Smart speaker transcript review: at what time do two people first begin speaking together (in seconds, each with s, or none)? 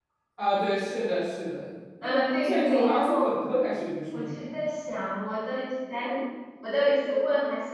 2.0 s